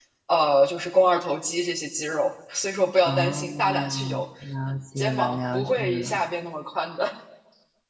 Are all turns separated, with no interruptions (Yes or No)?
No